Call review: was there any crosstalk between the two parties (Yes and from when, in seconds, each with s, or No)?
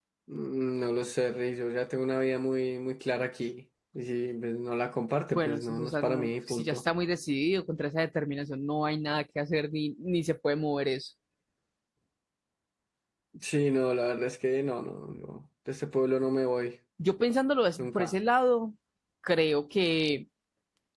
Yes, from 5.3 s